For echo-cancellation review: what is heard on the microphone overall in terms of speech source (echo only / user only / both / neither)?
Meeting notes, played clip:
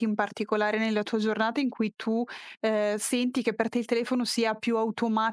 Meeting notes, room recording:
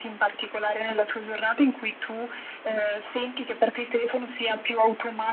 echo only